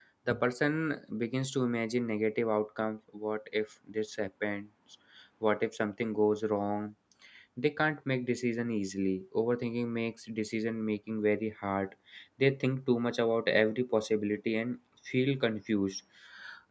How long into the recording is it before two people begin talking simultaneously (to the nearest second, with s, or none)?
none